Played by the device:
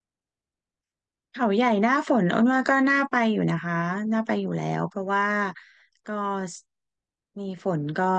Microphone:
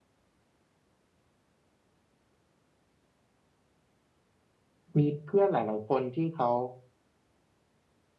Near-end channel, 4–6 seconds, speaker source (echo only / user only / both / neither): user only